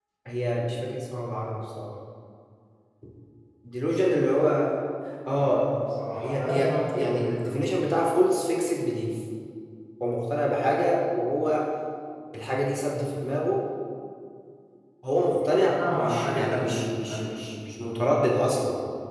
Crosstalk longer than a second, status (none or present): present